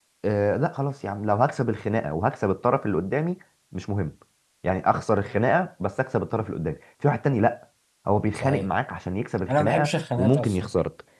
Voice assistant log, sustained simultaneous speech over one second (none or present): present